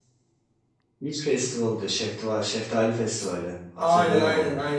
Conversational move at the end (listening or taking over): taking over